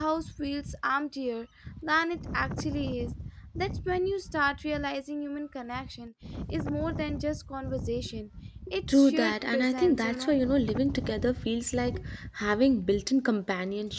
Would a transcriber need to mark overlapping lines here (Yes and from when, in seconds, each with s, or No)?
Yes, from 8.9 s